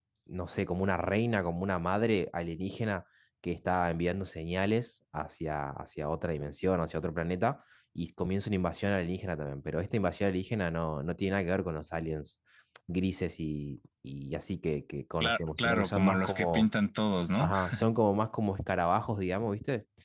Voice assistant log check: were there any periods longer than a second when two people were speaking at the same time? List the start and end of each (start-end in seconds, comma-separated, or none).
15.2-16.7